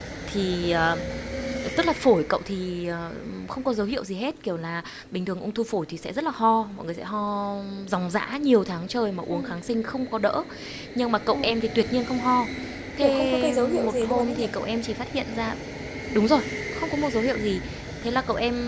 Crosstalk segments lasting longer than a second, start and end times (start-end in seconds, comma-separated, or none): 13.0-14.5